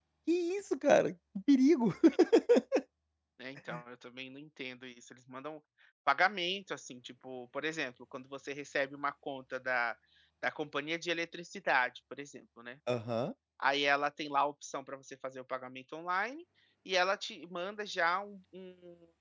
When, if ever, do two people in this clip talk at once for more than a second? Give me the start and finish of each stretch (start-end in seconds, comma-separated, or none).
none